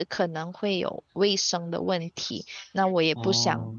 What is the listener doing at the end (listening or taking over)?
listening